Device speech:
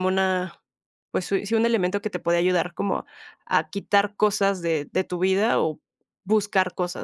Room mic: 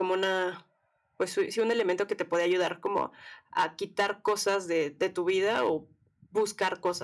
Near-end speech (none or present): none